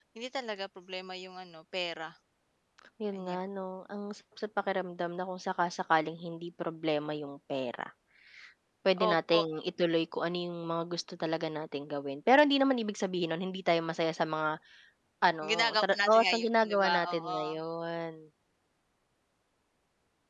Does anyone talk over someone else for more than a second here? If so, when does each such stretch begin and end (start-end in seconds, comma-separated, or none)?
15.5-17.4